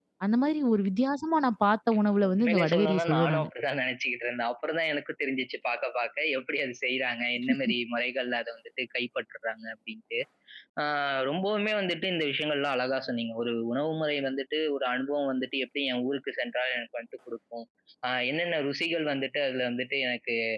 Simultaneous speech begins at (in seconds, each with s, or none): 2.1 s